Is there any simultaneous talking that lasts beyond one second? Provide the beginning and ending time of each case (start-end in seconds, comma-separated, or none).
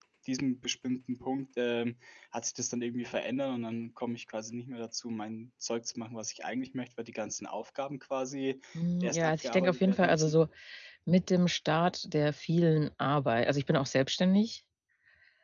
9.0-10.3